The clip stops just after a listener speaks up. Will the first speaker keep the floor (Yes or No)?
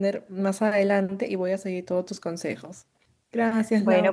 No